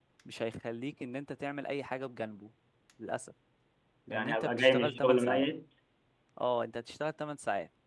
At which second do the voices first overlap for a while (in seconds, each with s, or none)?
4.1 s